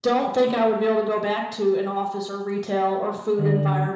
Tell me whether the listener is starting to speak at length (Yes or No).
No